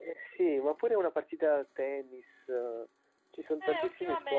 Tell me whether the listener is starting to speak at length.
Yes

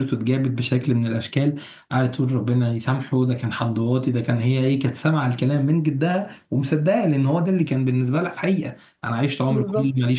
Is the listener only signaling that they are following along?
Yes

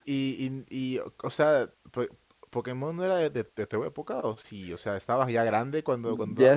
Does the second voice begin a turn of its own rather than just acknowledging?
Yes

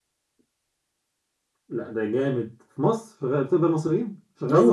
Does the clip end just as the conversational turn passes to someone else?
Yes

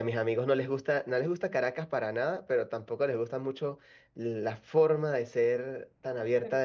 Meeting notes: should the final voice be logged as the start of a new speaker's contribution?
No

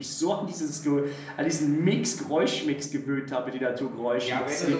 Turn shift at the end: Yes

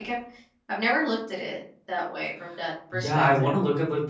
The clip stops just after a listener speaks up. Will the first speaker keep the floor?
No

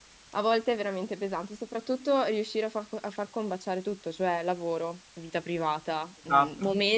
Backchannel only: Yes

